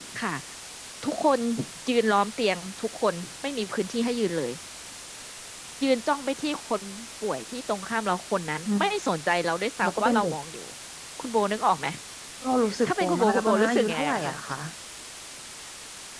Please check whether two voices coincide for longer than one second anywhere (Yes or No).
Yes